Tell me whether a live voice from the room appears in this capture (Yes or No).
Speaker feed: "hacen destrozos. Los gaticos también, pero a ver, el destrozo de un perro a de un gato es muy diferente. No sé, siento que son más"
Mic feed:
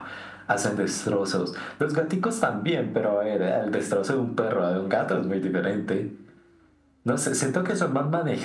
No